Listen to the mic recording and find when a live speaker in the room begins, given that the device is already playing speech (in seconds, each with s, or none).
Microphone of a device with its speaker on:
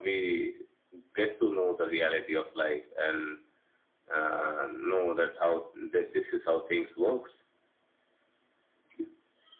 none